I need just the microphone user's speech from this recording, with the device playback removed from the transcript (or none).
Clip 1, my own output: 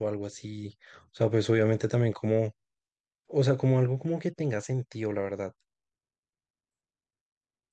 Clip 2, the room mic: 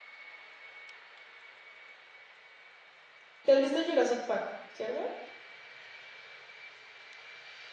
¿Te has visto Jurassic Park, cierto?